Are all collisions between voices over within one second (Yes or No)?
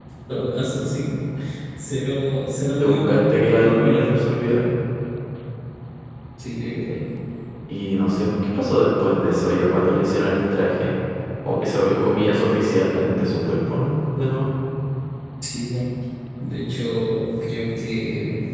No